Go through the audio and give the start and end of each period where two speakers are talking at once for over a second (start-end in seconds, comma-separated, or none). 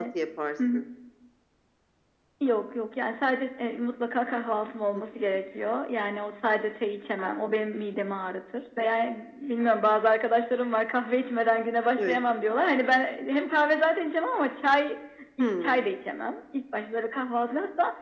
none